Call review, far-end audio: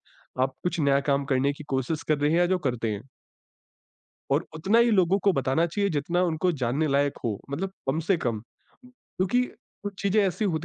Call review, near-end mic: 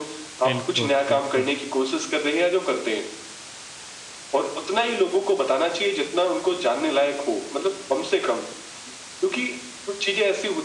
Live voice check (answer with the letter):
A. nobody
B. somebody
B